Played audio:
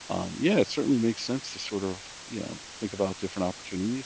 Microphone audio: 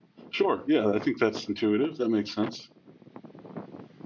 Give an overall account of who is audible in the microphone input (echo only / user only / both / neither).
user only